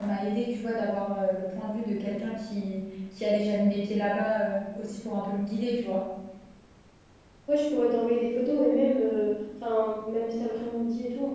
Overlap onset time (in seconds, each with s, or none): none